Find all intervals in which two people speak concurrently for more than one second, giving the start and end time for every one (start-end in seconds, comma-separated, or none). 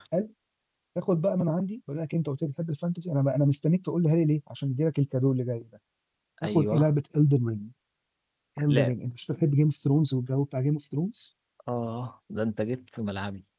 none